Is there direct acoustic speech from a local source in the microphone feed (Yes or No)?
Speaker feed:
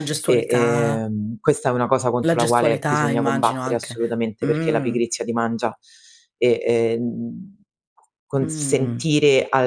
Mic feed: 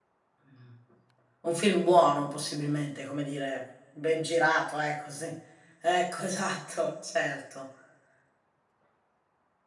Yes